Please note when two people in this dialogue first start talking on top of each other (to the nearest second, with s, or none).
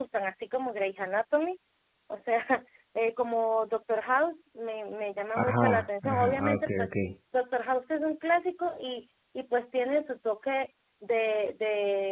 5 s